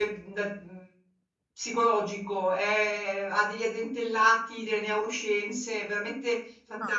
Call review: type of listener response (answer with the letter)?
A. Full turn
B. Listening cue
A